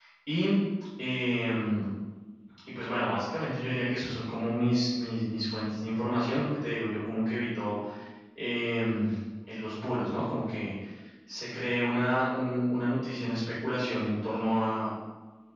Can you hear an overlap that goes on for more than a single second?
No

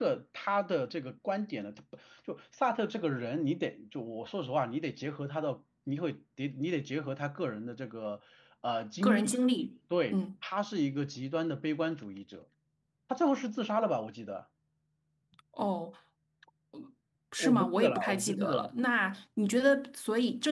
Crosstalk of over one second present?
Yes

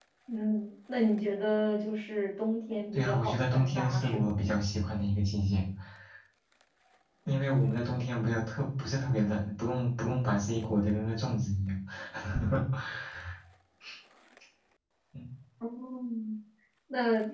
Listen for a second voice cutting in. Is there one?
Yes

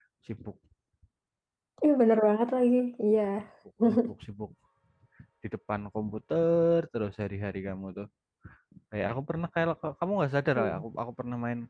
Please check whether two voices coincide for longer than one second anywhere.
No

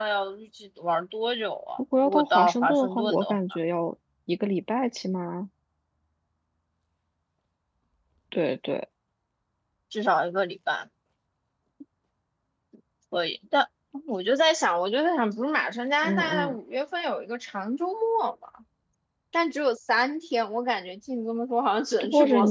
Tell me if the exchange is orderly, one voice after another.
No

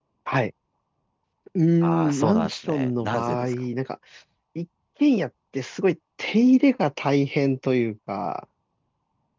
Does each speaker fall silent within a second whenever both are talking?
No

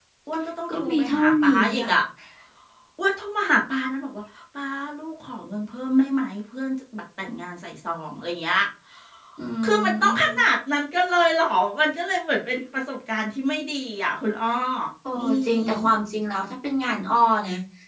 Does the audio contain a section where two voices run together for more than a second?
Yes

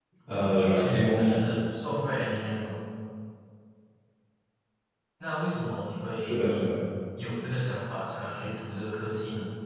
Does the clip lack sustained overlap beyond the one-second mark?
No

